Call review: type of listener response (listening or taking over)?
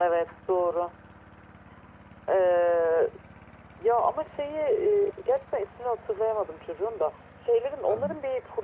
listening